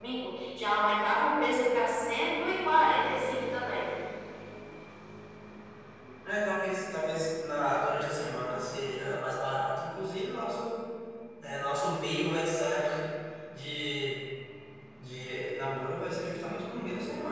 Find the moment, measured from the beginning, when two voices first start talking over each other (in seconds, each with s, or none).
none